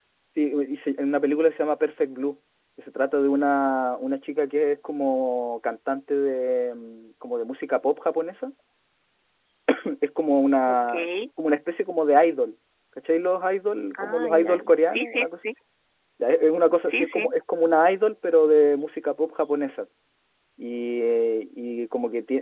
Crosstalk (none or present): present